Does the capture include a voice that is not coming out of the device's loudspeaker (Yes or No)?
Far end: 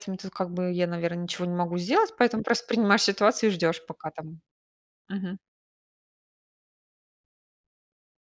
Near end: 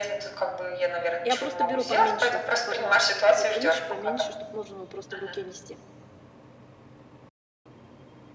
Yes